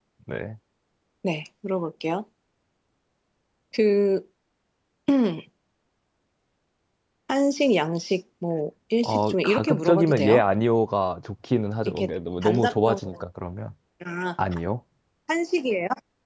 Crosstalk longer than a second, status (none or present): present